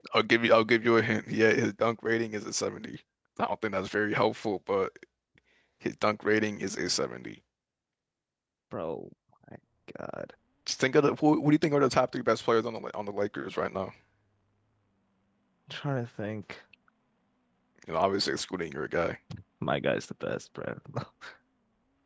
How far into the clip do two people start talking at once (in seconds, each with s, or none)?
none